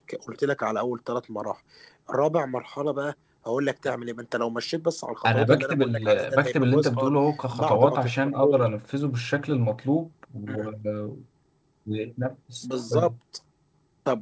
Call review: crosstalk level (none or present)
present